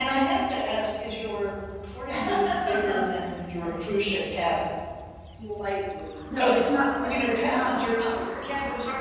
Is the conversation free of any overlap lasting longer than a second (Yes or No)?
No